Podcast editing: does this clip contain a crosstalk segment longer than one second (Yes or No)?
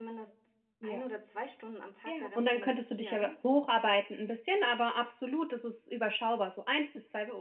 Yes